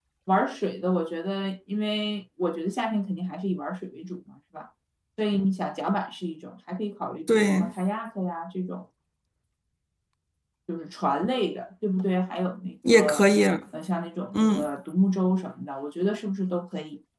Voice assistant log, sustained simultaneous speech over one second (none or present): none